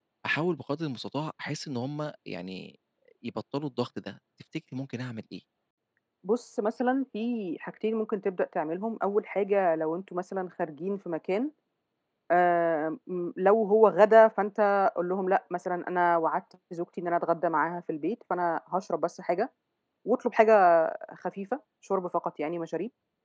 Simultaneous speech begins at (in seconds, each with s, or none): none